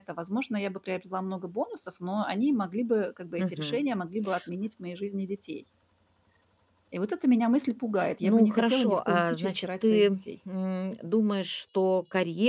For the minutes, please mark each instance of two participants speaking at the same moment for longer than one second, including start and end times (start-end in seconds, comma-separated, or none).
8.2-10.2